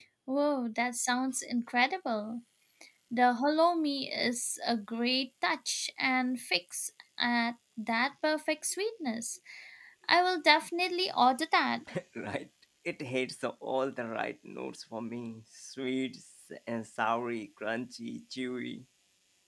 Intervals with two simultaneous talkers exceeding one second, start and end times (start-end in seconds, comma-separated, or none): none